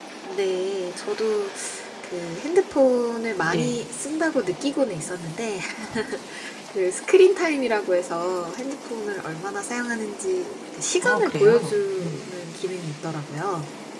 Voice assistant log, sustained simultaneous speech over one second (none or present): present